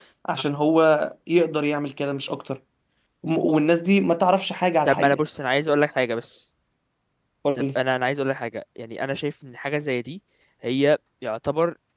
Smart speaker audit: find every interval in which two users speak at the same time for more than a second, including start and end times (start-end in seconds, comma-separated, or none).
none